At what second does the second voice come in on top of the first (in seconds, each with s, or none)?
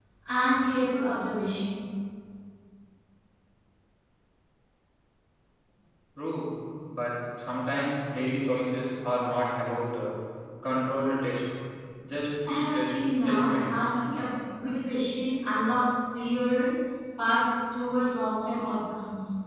12.5 s